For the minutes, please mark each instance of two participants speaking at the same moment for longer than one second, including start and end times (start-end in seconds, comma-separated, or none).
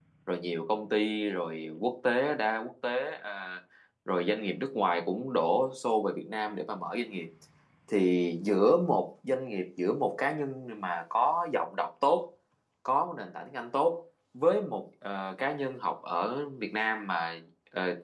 none